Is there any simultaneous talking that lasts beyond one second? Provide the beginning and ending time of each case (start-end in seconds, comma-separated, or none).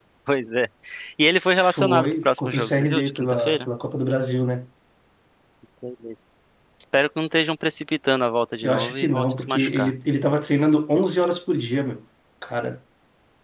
1.6-3.7, 8.6-9.9